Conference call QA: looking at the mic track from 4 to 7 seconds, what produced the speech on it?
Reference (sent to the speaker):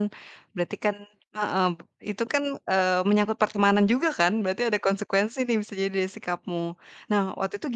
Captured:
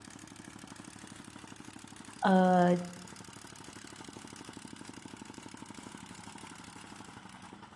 neither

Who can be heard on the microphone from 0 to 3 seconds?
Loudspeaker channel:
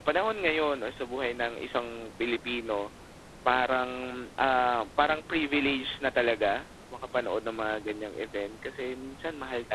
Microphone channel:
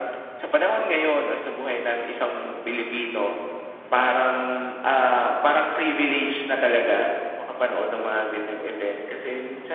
echo only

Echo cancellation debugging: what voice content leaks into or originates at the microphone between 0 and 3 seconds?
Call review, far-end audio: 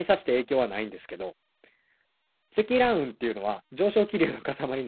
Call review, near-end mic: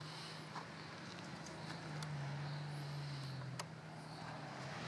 neither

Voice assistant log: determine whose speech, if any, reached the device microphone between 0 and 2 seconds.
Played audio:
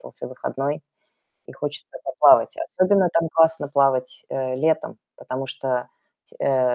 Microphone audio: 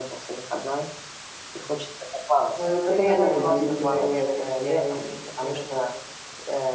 echo only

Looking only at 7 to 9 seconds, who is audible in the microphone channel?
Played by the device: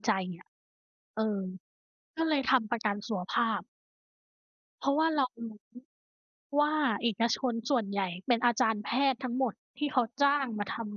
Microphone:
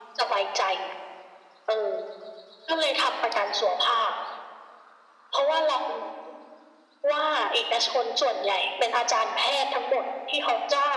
echo only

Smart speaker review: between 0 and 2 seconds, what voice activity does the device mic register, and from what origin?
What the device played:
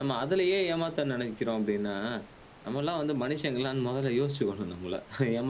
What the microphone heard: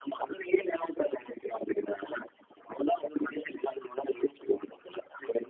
echo only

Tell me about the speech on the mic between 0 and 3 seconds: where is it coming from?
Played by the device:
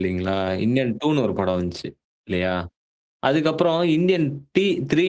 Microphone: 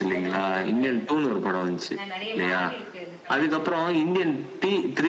both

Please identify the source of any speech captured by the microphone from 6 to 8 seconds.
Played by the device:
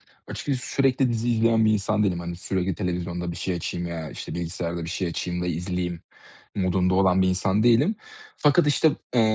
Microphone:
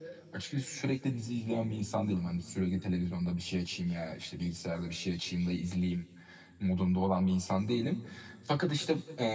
echo only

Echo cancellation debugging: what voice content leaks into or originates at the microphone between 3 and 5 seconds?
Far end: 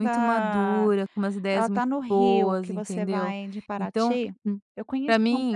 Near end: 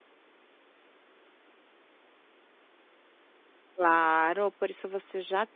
user only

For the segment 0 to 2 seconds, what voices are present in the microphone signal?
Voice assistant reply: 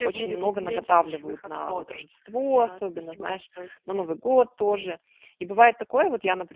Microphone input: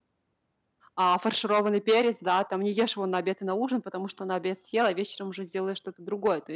user only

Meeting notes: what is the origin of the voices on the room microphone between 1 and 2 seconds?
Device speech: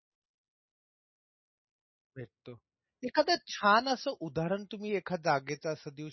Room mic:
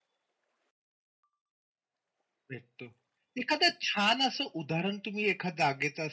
neither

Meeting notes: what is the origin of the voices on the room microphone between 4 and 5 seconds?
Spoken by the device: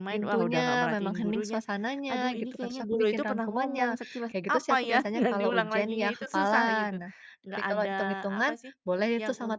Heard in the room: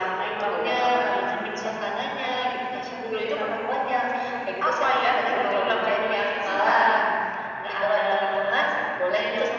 echo only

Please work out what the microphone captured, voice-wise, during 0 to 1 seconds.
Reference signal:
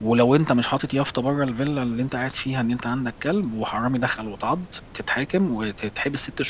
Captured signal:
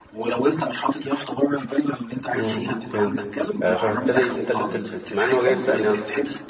echo only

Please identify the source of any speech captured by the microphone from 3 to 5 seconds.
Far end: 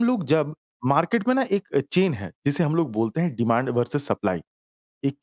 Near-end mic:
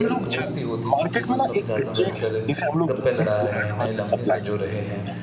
both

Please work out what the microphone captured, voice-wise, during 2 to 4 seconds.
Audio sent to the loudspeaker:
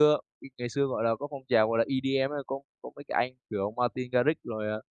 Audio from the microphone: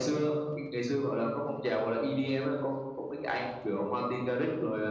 echo only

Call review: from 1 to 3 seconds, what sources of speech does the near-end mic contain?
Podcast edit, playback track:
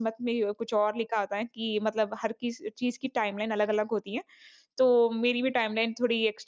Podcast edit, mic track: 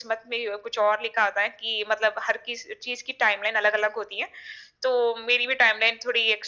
echo only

